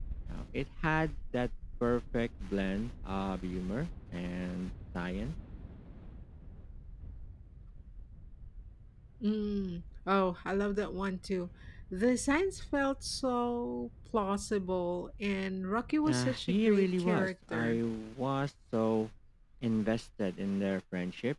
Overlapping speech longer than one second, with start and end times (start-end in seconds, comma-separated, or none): 16.1-17.8